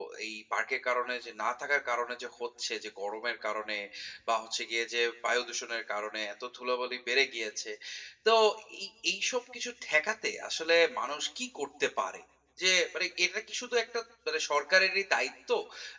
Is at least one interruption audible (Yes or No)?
No